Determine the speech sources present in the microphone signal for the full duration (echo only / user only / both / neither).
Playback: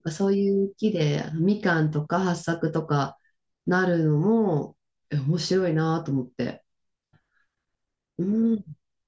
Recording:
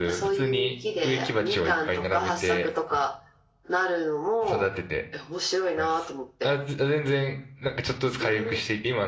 both